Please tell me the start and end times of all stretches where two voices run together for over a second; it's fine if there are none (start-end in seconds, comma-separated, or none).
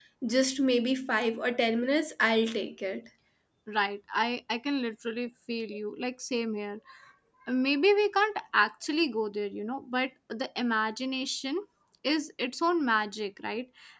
none